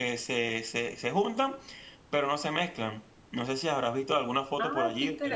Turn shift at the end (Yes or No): Yes